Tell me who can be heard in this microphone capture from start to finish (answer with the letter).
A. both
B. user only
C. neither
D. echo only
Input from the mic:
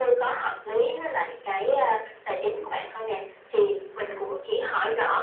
D